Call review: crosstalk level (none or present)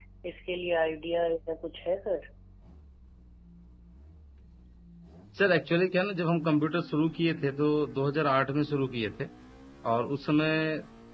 none